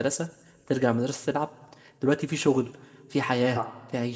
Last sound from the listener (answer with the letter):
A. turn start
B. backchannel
B